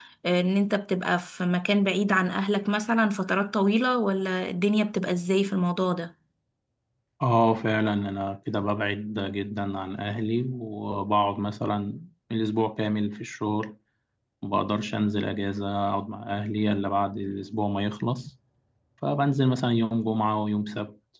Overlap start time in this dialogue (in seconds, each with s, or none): none